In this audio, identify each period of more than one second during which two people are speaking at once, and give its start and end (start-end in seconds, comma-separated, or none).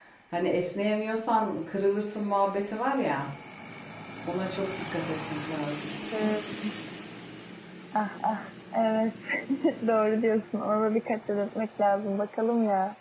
none